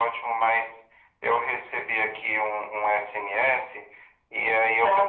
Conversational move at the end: listening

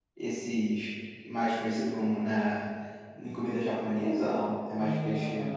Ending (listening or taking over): taking over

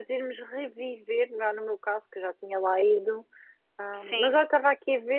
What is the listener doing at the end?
listening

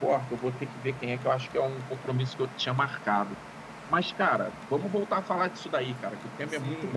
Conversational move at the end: taking over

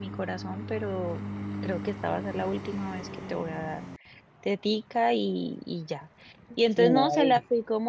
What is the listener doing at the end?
listening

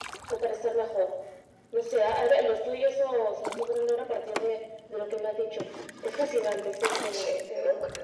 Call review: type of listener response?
taking over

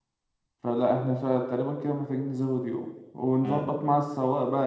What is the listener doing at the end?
listening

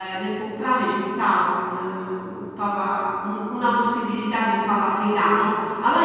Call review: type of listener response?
listening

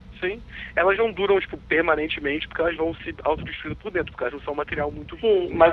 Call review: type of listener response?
taking over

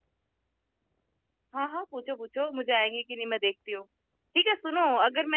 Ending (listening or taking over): listening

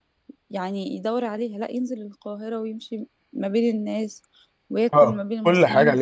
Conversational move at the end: taking over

